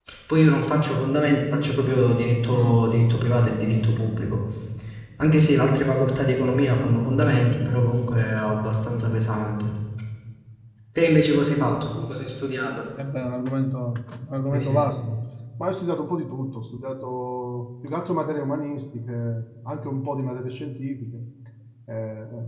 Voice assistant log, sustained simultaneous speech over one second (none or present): none